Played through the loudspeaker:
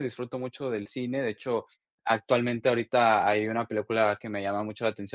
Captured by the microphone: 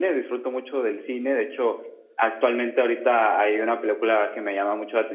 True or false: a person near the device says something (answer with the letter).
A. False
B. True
A